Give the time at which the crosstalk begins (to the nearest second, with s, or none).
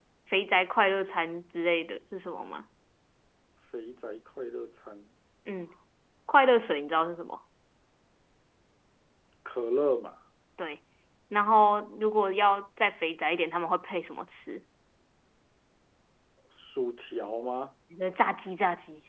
none